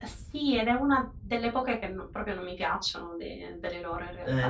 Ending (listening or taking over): taking over